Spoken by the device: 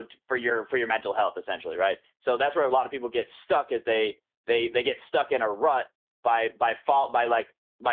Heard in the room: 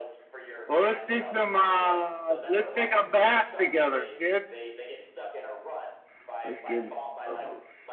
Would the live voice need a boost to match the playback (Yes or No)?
No